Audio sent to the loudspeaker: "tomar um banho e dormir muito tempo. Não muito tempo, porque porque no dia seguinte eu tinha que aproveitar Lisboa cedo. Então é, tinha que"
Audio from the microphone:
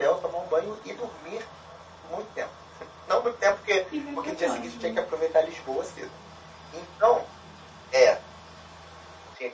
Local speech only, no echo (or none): Fica pra próxima.